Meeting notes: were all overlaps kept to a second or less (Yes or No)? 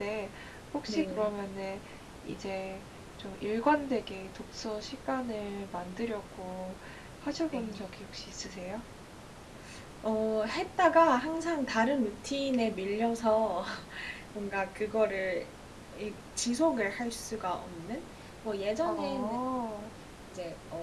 Yes